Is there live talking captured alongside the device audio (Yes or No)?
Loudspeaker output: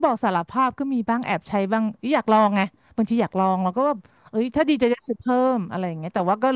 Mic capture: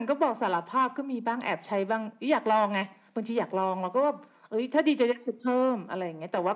No